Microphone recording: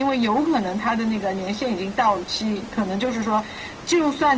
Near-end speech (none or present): none